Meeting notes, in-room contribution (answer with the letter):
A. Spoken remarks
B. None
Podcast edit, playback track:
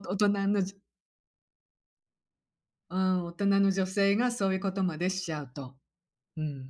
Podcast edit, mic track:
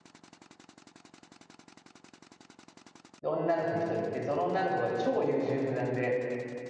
A